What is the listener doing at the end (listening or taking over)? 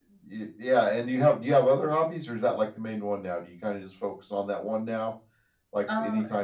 listening